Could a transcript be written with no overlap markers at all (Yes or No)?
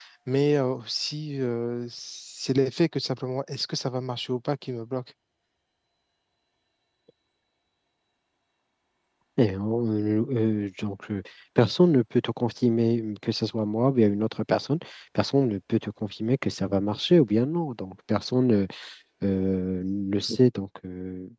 Yes